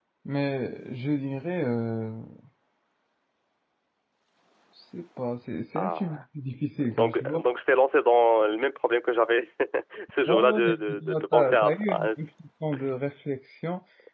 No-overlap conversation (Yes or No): No